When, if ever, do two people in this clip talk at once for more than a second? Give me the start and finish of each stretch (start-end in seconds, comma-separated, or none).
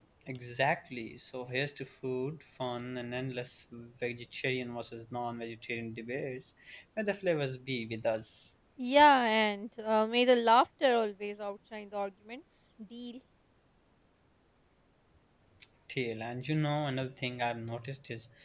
none